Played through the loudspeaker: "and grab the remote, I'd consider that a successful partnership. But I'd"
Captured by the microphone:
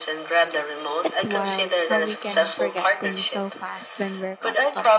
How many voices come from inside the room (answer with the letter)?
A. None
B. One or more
B